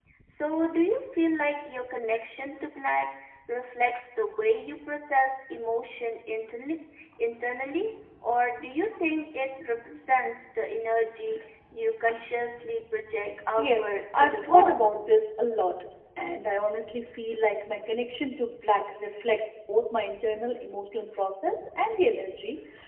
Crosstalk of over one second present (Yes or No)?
Yes